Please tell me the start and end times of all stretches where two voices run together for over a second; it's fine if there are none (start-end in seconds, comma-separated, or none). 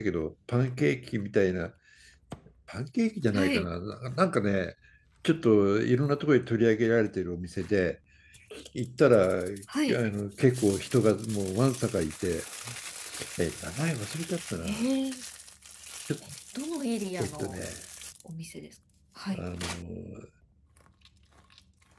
none